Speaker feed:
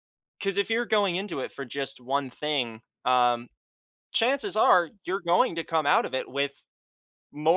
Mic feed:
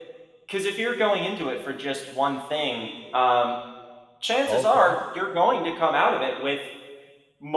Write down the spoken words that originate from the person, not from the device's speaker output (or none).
Okay.